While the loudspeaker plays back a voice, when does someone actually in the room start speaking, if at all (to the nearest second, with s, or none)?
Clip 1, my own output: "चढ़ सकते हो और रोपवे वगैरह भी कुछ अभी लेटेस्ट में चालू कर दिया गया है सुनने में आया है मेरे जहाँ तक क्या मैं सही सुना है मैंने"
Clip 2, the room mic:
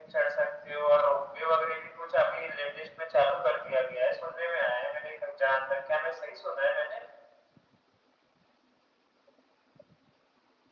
none